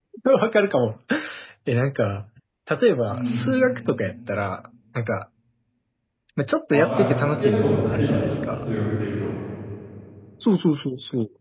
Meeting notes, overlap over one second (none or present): present